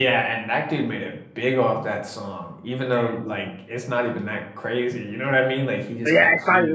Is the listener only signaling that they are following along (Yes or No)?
No